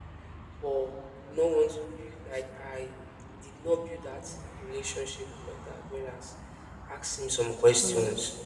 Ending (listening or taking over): listening